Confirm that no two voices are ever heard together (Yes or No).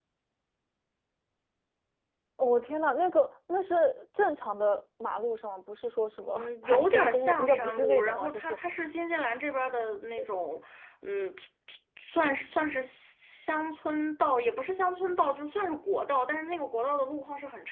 No